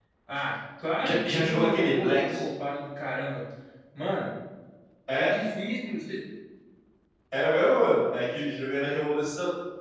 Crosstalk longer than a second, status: present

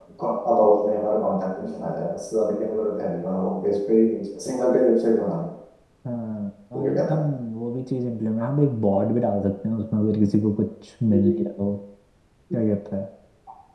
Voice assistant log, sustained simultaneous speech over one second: none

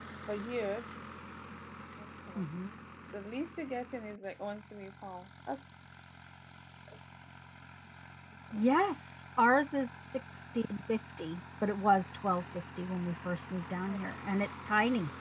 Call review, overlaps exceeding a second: none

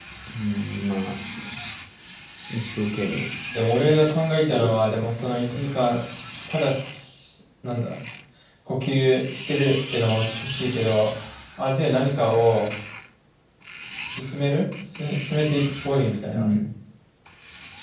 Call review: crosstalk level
present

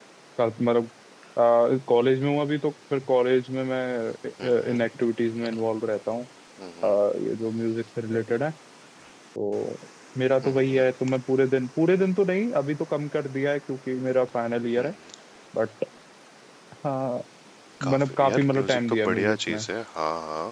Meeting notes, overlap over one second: present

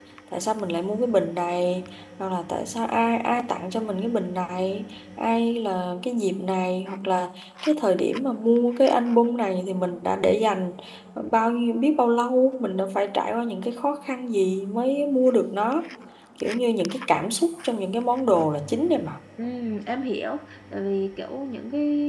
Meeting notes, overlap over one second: none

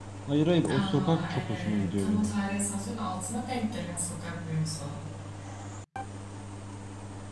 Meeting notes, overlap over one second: present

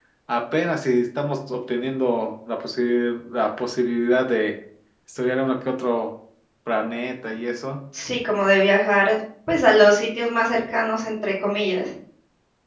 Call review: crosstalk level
none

